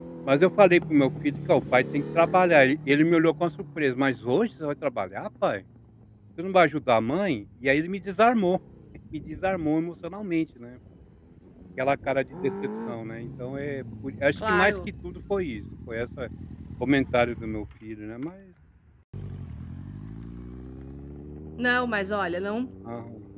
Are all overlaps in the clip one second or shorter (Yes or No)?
Yes